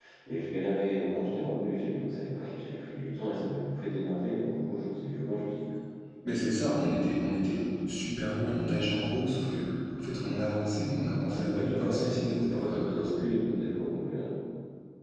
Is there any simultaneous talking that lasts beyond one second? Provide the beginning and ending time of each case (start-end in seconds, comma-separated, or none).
11.3-13.3